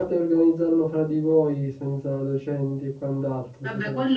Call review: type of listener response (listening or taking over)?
taking over